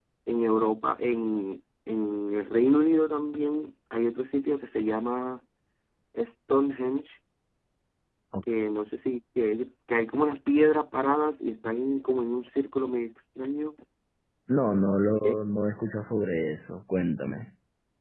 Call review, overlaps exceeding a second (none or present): none